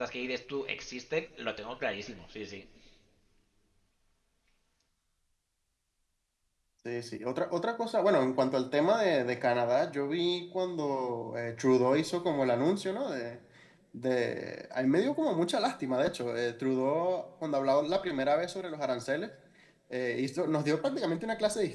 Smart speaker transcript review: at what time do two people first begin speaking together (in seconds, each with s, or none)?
none